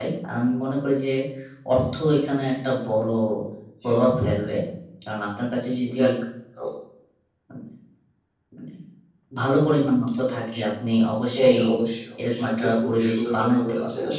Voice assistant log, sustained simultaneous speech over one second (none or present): present